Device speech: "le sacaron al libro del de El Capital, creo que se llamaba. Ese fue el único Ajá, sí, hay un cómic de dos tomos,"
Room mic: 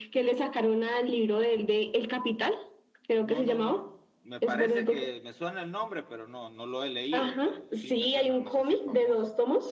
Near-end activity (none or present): present